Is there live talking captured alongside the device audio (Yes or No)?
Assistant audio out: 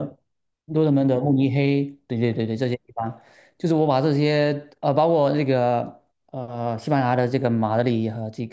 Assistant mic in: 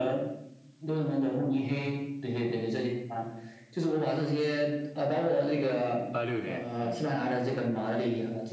Yes